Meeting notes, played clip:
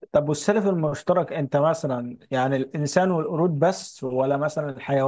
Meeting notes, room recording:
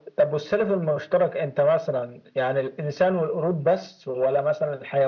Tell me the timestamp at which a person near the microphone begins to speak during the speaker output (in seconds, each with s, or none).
none